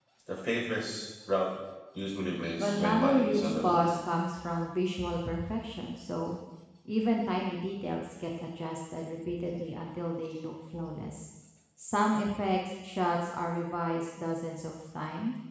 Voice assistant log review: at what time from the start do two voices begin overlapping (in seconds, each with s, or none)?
2.6 s